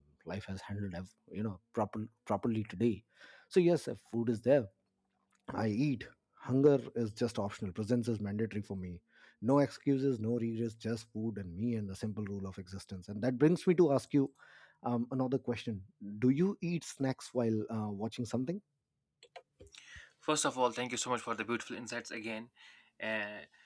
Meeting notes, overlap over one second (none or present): none